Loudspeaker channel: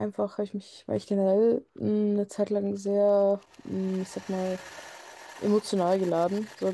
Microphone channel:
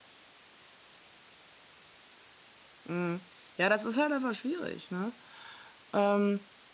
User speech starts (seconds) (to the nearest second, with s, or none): 3 s